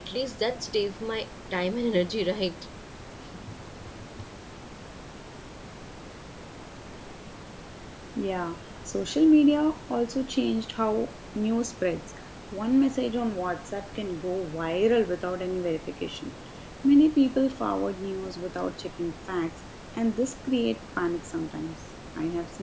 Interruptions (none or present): none